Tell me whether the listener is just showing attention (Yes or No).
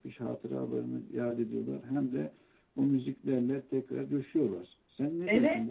No